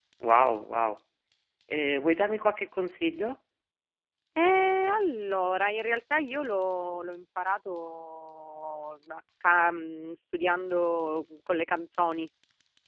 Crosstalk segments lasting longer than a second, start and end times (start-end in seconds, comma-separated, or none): none